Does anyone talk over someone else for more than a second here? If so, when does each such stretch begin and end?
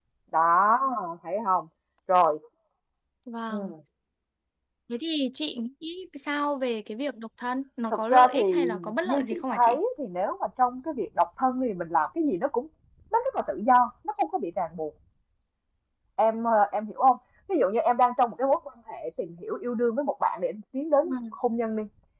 7.9-9.8

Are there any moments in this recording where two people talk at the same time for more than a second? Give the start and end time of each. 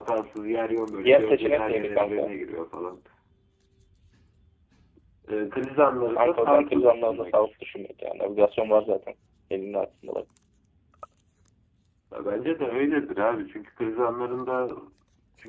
1.0-2.3, 6.1-7.3

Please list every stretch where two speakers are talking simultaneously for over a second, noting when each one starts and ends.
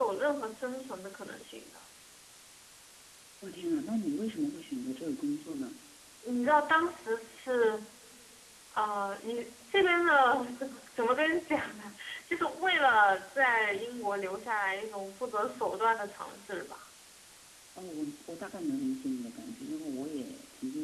none

